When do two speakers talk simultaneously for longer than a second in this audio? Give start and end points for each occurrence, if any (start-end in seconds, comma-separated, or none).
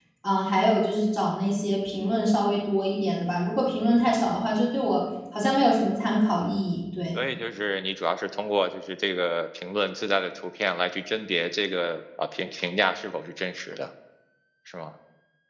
none